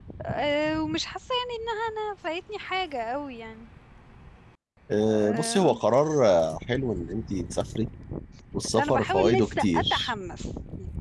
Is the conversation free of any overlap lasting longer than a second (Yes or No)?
No